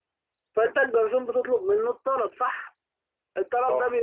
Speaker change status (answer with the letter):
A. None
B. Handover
A